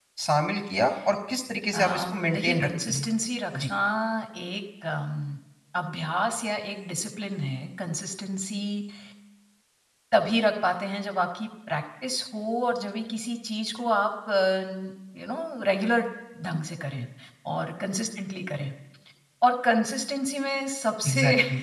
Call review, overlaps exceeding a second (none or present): present